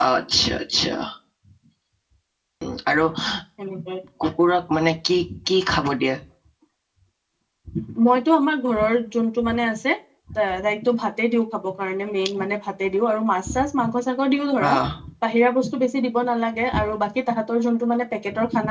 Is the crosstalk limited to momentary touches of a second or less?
Yes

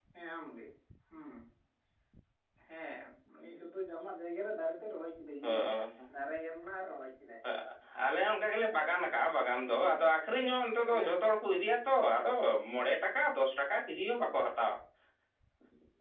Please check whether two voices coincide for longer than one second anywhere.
No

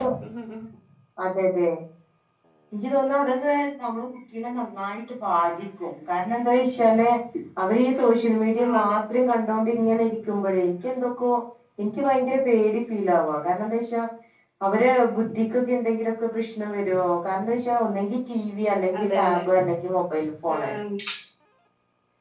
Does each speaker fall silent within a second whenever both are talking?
Yes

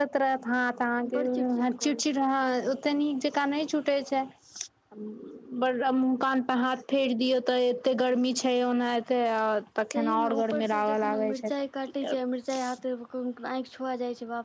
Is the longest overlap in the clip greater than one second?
Yes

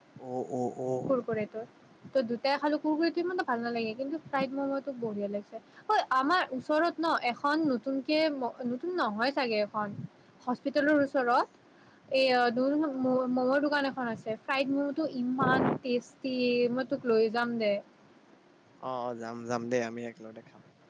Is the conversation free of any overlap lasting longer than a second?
Yes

